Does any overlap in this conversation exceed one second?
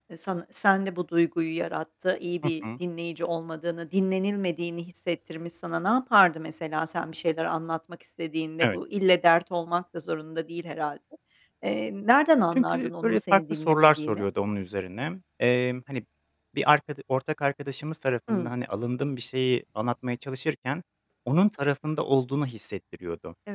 Yes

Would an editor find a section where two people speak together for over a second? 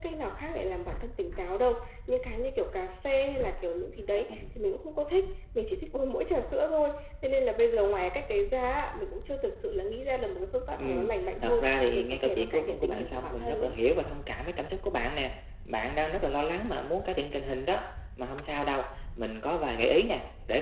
Yes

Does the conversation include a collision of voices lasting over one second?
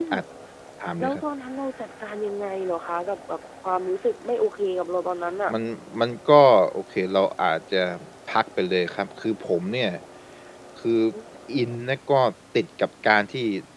No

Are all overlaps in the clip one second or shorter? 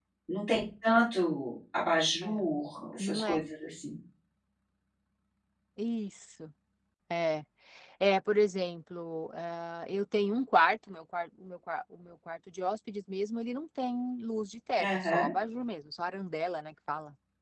Yes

